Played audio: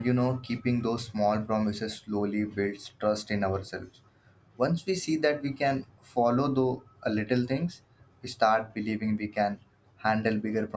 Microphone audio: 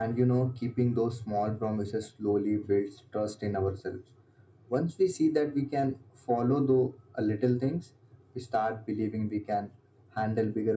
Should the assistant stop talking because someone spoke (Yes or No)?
No